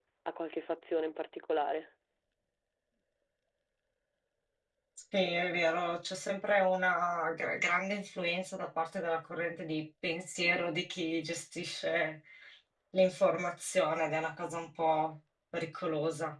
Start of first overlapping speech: none

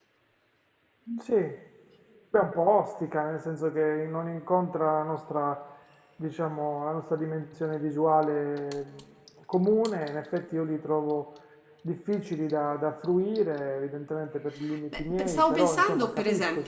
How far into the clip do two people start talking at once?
14.9 s

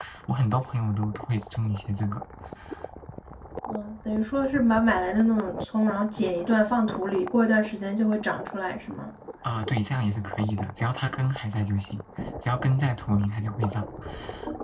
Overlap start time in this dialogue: none

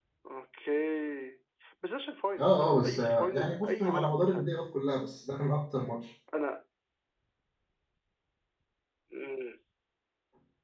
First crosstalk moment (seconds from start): 2.4 s

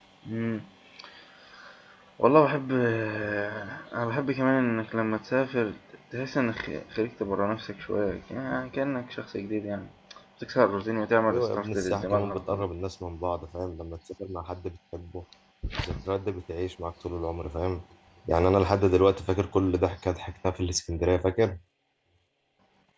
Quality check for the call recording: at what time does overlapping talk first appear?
11.3 s

